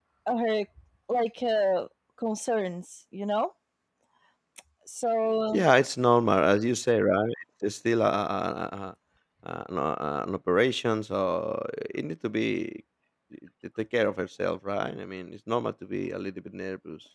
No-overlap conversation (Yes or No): Yes